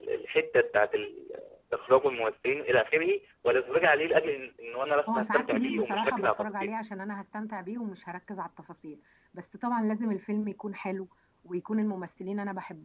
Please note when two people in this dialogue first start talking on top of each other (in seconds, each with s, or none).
5.1 s